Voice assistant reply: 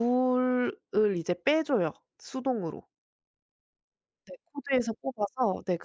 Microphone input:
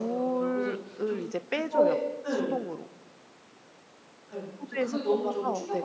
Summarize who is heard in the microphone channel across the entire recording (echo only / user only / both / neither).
both